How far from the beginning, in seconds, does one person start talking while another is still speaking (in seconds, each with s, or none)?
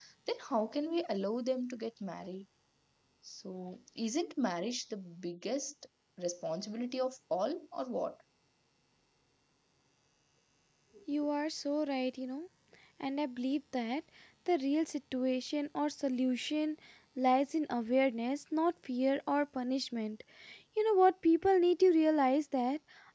none